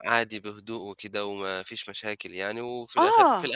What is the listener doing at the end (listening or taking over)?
listening